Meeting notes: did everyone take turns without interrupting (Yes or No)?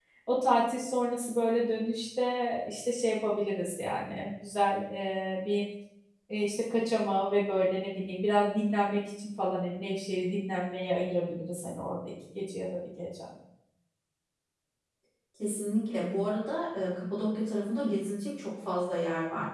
Yes